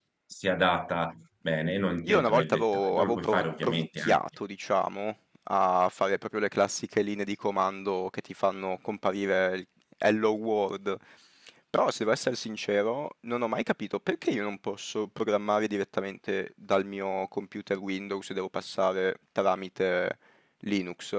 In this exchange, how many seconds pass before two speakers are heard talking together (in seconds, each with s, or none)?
2.1 s